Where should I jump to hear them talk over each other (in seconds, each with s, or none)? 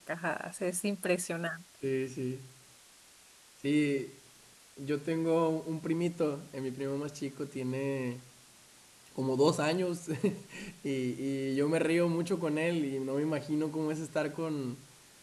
none